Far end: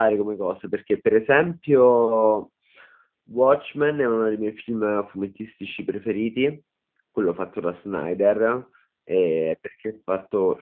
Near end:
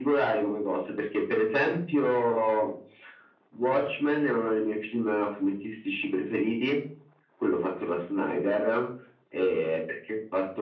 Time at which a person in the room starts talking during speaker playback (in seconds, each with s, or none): none